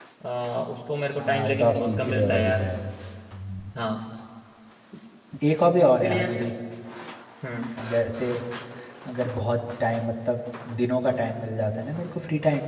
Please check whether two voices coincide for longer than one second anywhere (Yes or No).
Yes